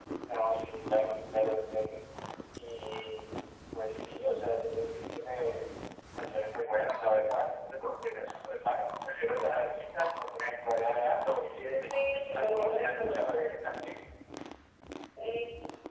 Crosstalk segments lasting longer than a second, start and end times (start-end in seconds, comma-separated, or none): 11.9-13.4